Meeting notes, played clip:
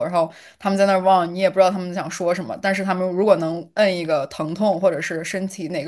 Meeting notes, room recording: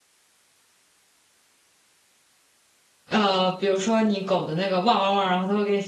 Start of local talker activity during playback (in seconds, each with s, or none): 3.1 s